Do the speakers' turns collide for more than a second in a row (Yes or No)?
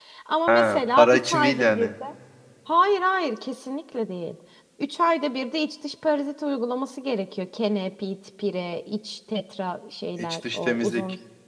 Yes